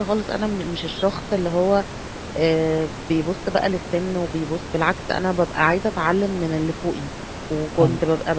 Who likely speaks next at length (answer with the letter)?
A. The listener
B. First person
B